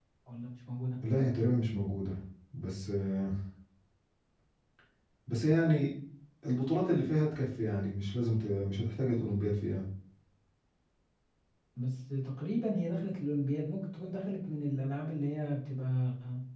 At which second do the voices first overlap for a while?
none

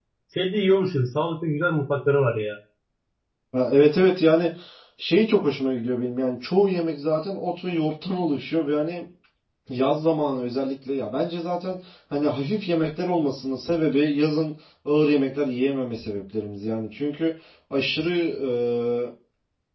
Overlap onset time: none

